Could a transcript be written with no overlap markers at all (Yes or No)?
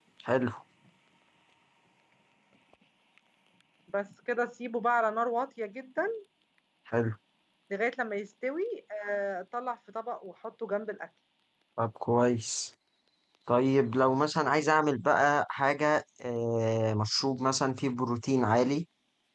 Yes